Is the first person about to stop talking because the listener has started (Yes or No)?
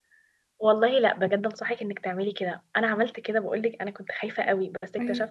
No